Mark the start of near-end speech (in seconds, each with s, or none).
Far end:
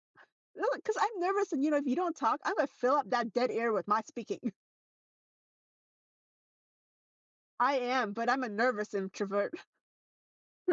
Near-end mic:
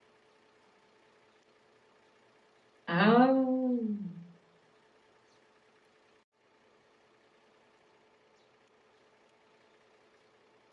2.9 s